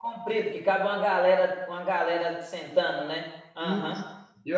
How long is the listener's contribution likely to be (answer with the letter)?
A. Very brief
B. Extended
B